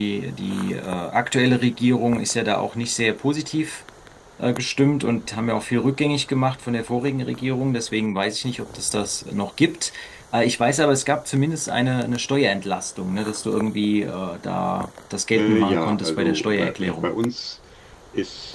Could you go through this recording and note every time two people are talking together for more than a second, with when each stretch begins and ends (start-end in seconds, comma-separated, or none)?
15.3-17.1